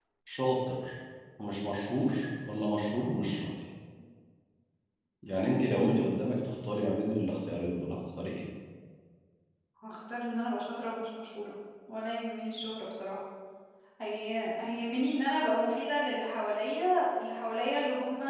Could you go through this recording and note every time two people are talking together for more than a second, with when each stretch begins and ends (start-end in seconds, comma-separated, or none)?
none